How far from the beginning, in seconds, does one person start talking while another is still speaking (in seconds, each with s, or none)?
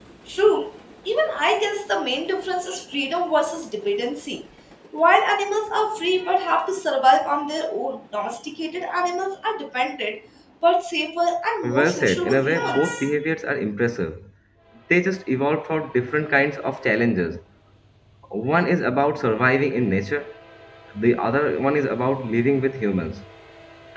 11.6 s